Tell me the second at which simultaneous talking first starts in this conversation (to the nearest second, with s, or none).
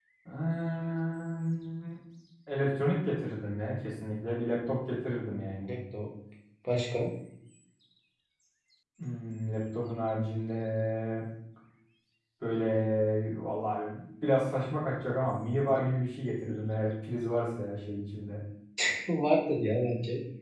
none